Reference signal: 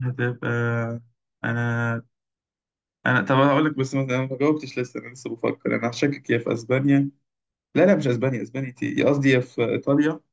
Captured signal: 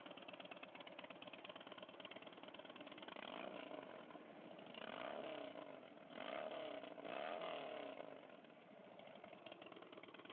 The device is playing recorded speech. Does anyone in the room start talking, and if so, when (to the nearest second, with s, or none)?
none